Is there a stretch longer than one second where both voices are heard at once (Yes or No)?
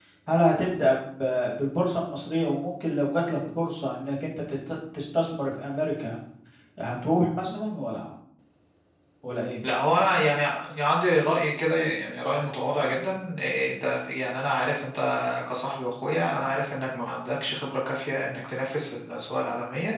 No